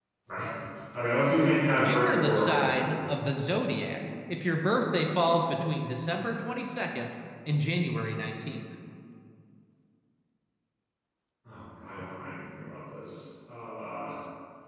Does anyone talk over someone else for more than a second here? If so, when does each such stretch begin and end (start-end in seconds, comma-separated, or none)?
1.8-3.0